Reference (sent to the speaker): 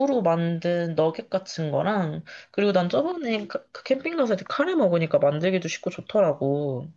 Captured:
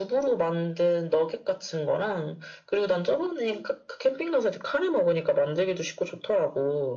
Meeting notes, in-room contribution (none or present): none